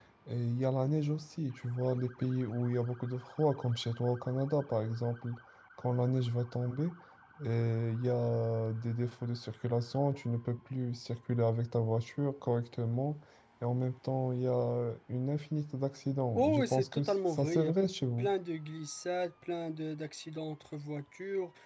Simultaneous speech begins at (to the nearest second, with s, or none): 16 s